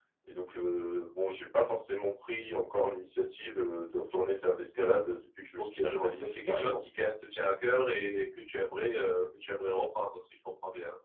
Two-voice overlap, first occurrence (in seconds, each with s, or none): 5.6 s